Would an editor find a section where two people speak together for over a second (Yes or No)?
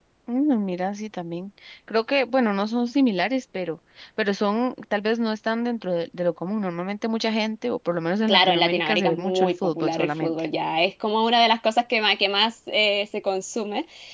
Yes